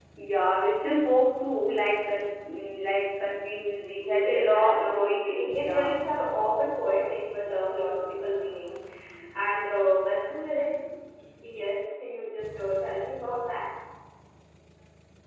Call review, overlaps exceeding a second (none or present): present